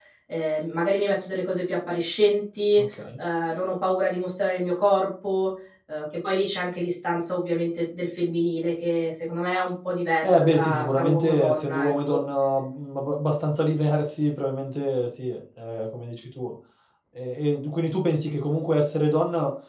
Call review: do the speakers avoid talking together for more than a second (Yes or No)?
No